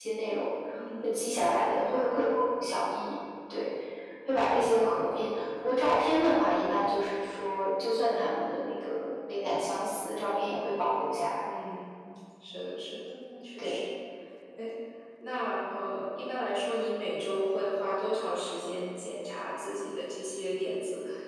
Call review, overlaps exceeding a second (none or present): none